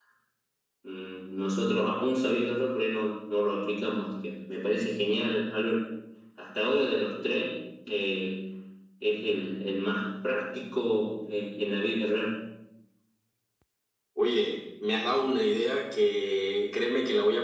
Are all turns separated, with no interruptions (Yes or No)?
Yes